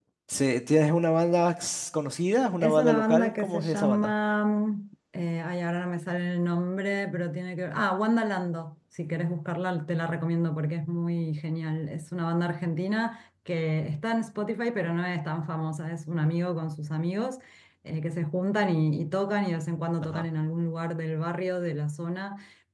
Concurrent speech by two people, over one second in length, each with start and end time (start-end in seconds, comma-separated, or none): 2.6-4.1